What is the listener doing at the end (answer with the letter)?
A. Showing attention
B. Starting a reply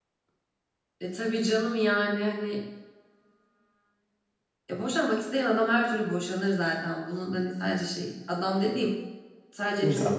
A